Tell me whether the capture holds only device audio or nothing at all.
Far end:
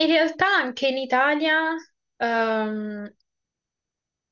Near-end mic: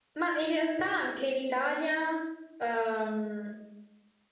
Yes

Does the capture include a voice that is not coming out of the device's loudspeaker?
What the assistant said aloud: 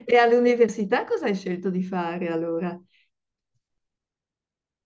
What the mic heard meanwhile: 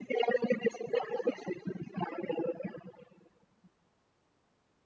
No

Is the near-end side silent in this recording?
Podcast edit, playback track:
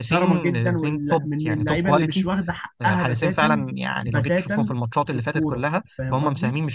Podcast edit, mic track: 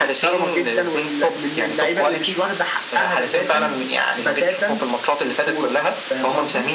Yes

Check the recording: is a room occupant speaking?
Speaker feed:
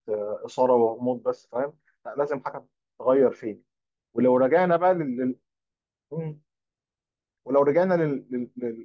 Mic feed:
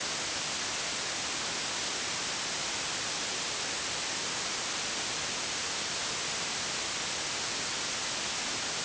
No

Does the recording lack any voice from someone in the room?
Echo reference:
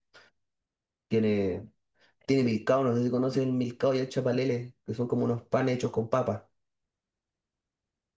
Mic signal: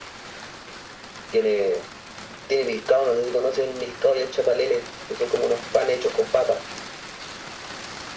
Yes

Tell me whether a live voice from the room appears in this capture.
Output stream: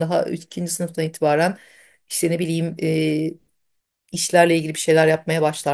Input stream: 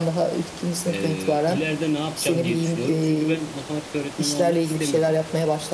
Yes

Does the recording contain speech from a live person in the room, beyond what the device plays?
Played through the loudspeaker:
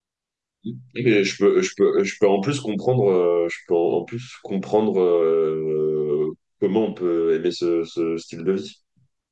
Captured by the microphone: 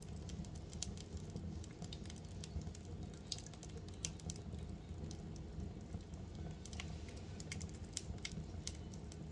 No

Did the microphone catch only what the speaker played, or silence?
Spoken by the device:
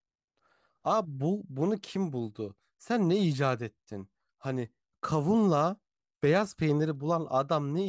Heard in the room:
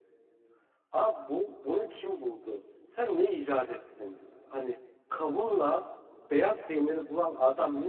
Yes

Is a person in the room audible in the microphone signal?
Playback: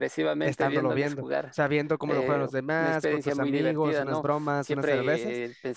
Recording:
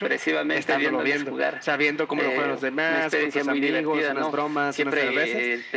No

